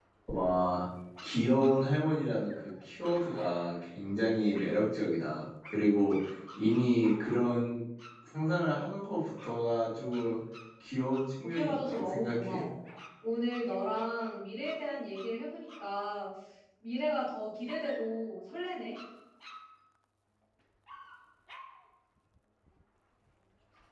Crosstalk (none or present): present